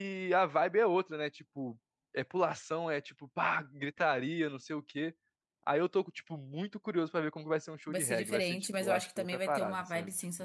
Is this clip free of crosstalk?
No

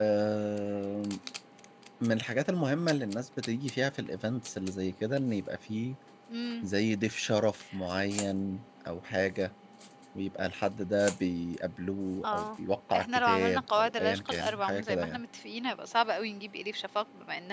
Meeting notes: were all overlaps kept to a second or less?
No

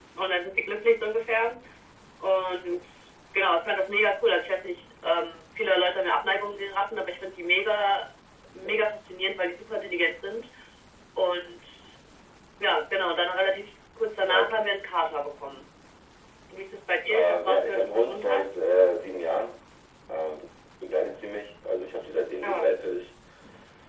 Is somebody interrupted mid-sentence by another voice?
Yes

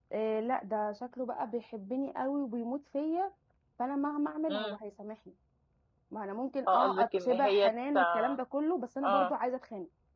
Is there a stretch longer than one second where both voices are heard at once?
Yes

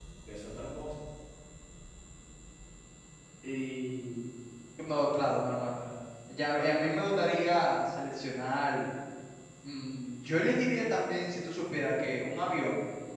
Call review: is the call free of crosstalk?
Yes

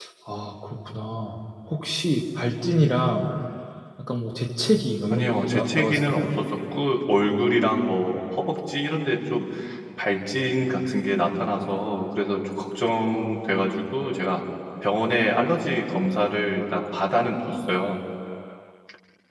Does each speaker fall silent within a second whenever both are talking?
No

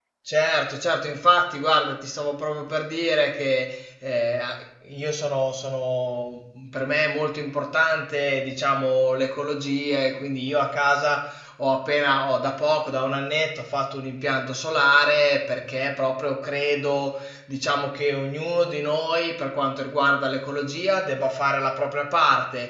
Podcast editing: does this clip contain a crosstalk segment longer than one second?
No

